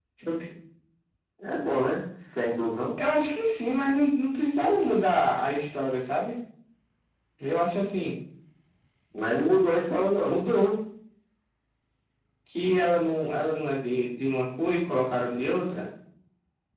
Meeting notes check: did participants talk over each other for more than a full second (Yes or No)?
No